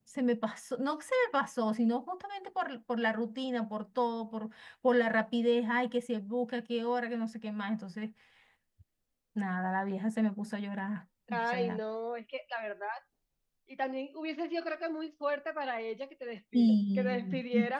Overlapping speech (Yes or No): Yes